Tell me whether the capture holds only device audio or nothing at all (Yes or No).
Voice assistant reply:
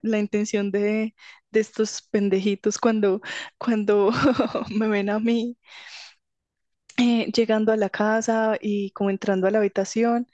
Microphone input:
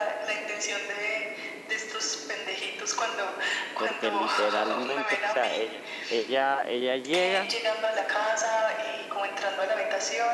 No